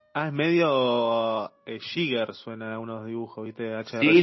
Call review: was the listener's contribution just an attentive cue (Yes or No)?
No